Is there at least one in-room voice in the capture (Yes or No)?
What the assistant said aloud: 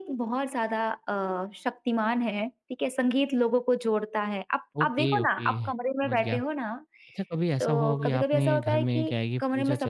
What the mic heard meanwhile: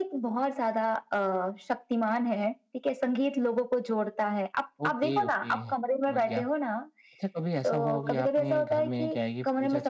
No